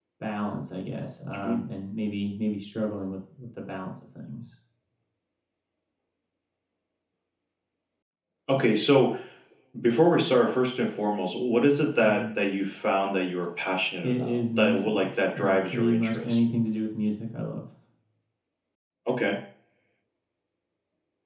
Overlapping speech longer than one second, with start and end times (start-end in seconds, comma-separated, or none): 14.0-16.4